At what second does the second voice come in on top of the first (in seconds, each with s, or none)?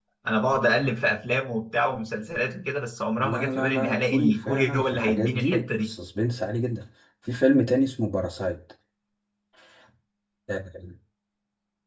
3.2 s